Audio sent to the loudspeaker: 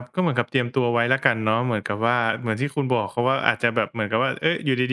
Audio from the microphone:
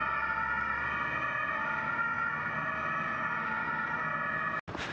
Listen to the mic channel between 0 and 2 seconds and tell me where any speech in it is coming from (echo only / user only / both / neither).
neither